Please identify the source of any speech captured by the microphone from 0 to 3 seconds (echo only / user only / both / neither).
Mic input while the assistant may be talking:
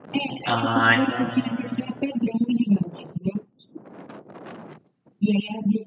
both